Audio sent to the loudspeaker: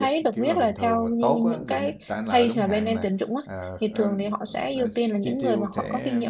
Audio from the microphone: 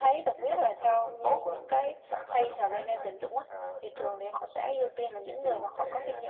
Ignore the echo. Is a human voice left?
No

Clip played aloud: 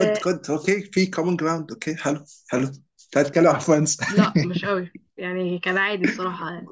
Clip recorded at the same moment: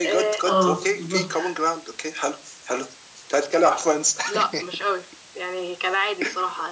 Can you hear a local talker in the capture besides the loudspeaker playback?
Yes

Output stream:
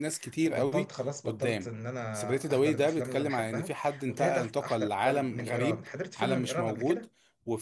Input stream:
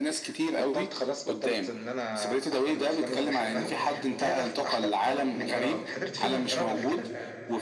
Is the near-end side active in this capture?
Yes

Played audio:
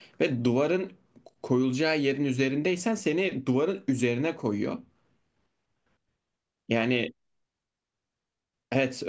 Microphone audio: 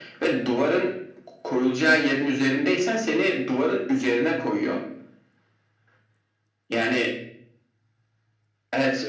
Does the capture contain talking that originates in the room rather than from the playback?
No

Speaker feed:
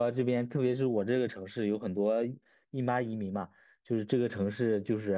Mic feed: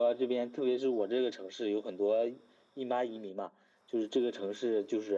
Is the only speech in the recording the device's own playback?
Yes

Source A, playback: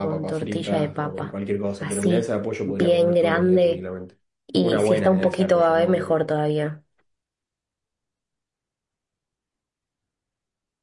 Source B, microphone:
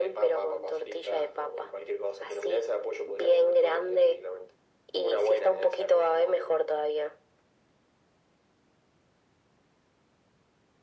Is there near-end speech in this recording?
No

